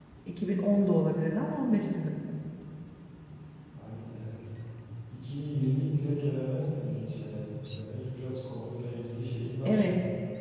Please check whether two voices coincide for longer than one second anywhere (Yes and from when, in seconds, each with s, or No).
No